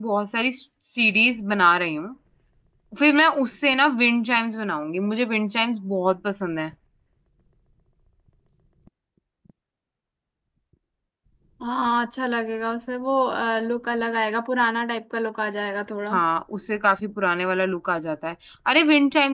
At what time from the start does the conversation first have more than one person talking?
none

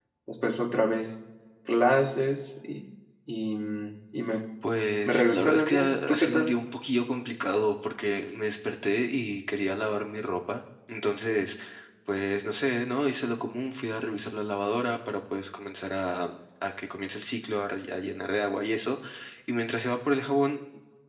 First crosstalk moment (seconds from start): 5.0 s

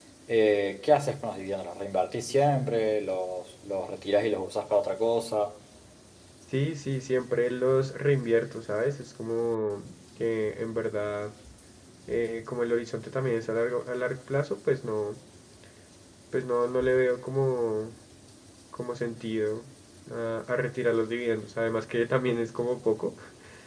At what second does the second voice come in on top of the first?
none

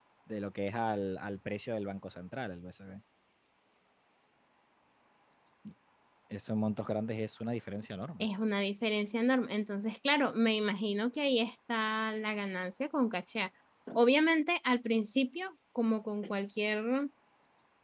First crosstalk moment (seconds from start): none

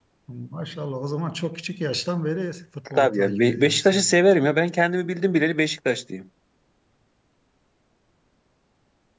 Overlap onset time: 2.9 s

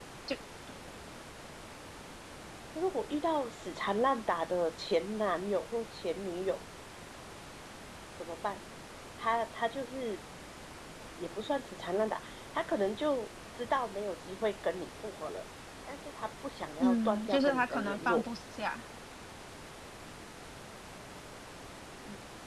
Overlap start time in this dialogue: 16.8 s

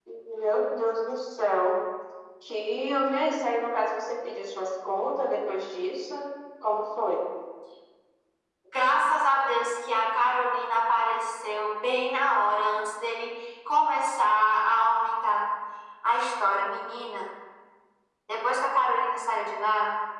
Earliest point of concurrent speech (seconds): none

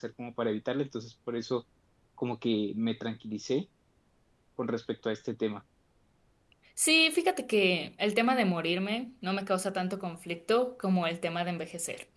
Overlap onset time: none

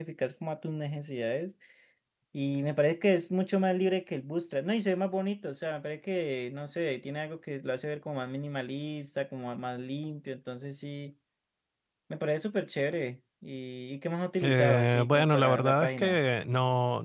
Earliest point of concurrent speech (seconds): 14.4 s

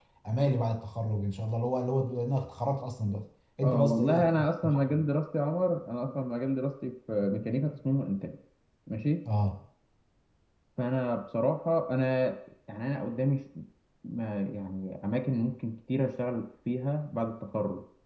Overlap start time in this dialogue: 3.6 s

